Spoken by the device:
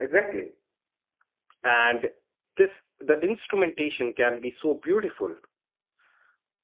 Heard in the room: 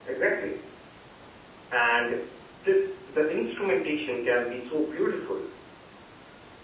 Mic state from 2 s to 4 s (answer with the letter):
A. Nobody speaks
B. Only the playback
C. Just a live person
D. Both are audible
B